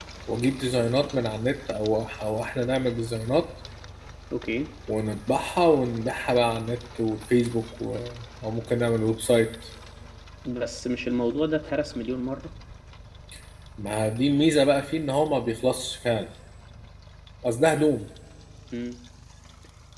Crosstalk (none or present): none